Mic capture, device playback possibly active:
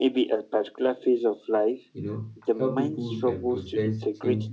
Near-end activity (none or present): present